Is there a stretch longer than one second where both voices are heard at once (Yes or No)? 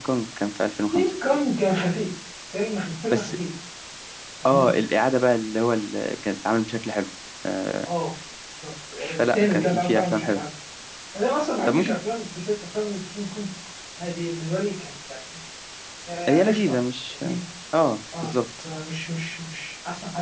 Yes